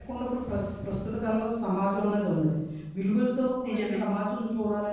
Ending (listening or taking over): listening